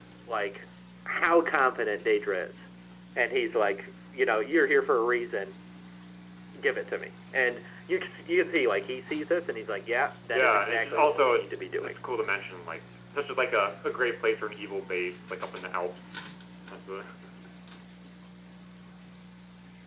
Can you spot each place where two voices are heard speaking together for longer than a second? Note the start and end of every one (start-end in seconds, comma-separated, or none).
10.3-12.0